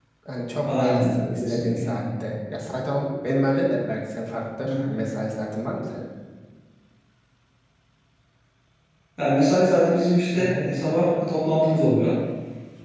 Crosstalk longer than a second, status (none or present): present